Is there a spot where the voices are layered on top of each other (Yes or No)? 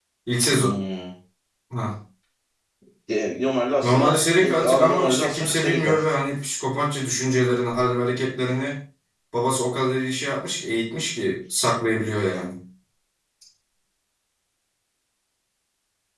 Yes